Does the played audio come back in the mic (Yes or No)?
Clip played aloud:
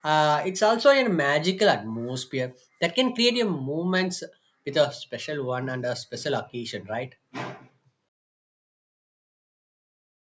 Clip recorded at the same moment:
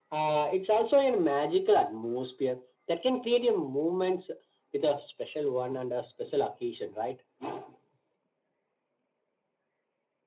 Yes